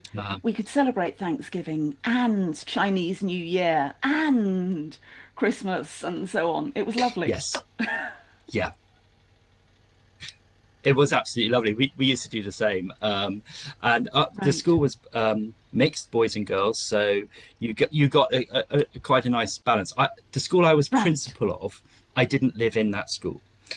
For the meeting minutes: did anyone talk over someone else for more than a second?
No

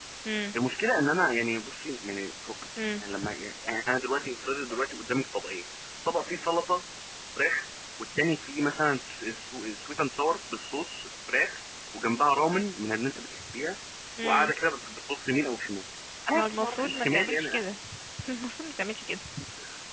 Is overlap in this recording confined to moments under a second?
No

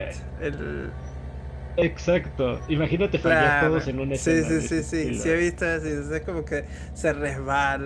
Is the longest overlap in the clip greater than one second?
Yes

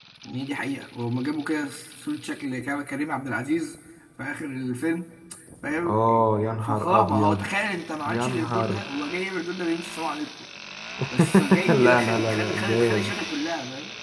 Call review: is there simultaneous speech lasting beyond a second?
Yes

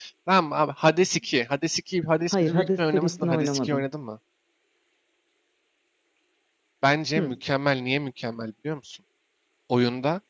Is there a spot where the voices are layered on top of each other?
Yes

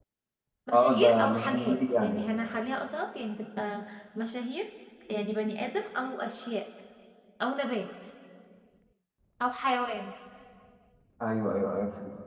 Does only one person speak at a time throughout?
No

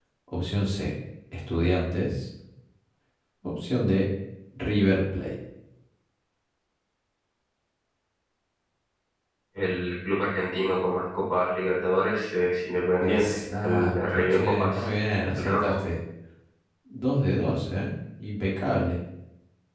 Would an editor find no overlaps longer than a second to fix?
No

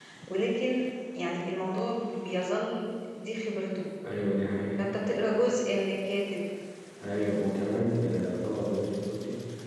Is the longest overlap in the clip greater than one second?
No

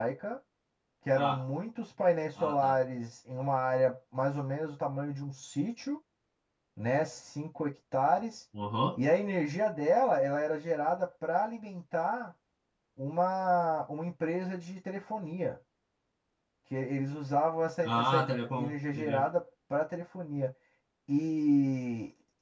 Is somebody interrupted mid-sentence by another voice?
Yes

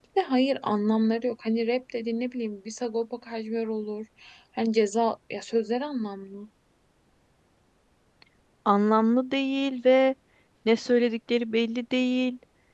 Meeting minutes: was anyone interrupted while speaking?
No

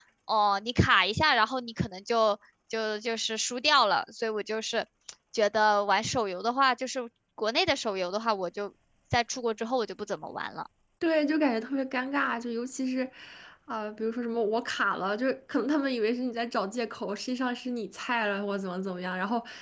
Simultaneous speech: No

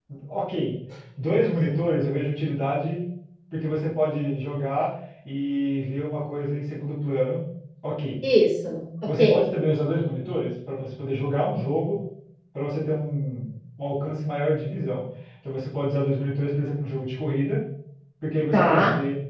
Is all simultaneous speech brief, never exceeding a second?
Yes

